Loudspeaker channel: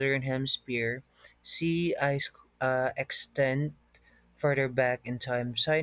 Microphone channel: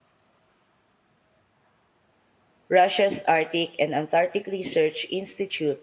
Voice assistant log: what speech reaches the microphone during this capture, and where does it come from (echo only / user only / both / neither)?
user only